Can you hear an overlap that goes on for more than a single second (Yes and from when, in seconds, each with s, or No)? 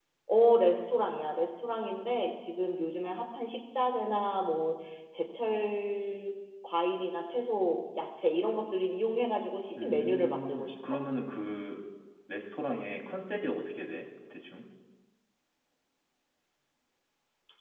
Yes, from 9.8 s